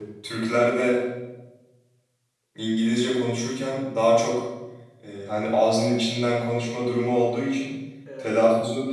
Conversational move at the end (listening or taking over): listening